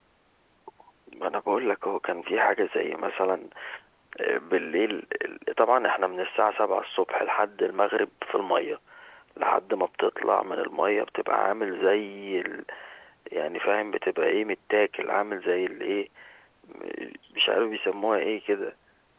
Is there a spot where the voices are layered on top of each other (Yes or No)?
No